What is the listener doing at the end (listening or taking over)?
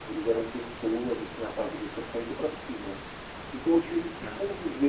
listening